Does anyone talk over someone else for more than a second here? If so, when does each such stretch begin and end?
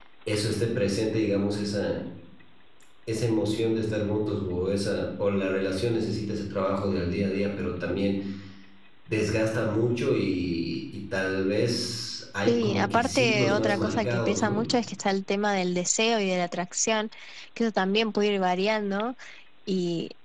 12.5-14.6

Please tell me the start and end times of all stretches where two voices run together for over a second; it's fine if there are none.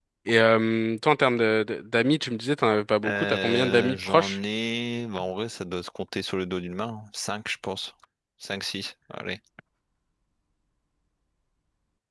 3.0-4.4

